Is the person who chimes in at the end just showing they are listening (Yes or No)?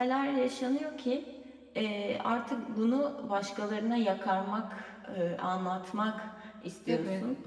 Yes